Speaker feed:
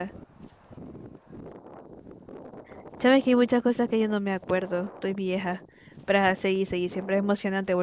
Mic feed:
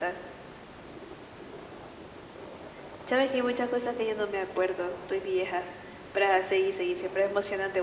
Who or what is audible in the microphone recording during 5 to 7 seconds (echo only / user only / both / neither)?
echo only